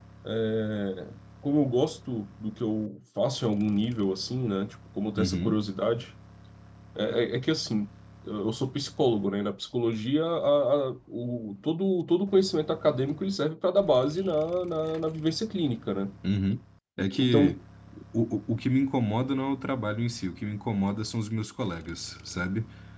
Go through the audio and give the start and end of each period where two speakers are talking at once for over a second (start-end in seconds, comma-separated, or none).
none